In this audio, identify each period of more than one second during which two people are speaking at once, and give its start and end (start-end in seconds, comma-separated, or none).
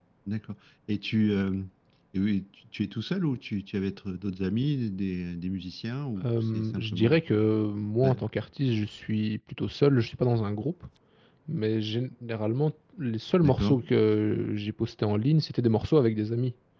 6.2-7.4